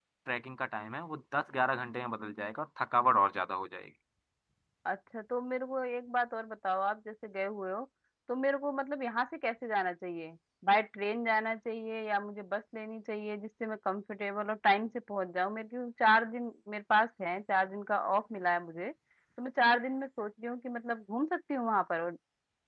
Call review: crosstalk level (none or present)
none